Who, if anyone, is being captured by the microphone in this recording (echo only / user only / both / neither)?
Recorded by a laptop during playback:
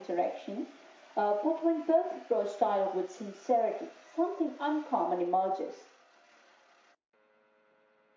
echo only